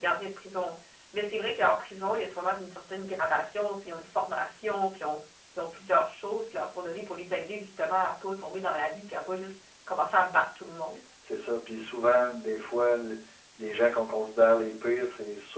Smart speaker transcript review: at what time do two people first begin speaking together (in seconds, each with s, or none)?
none